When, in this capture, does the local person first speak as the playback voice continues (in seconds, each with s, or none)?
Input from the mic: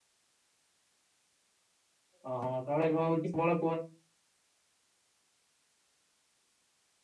2.3 s